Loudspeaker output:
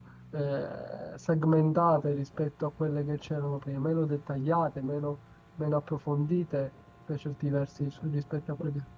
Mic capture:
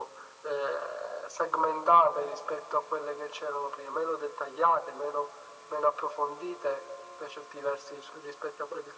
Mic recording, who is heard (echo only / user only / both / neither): echo only